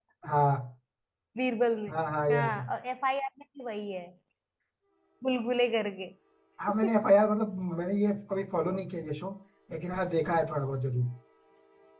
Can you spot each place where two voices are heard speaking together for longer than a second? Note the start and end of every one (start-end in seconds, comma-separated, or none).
none